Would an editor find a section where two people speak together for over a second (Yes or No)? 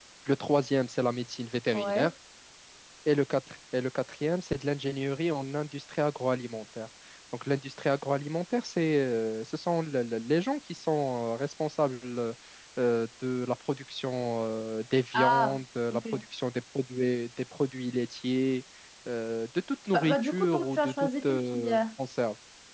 Yes